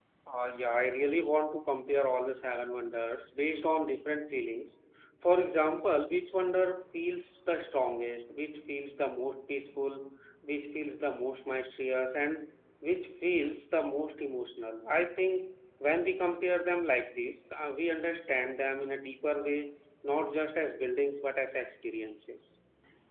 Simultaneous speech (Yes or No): No